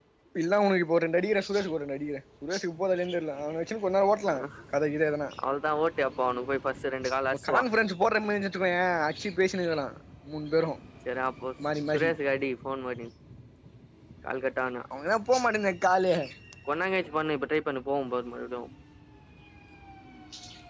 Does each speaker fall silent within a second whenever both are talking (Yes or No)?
Yes